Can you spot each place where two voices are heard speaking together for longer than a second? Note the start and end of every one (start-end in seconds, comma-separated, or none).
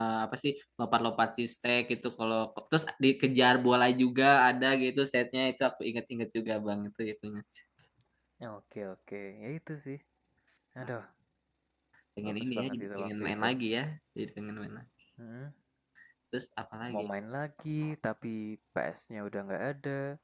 12.2-13.4